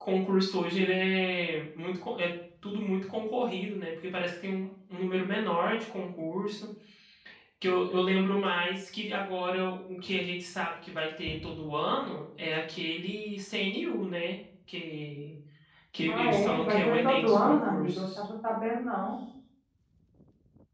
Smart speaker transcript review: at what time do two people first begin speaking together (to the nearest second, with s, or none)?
16 s